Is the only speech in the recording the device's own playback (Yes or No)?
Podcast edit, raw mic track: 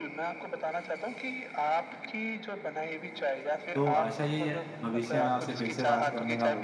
No